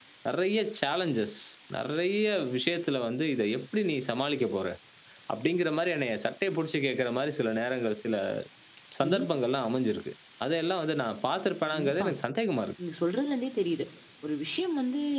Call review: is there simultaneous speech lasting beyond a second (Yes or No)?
No